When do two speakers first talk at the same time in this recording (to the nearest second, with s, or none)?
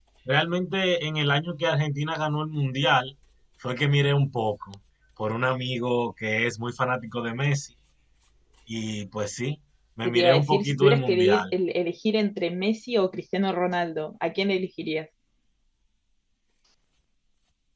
10 s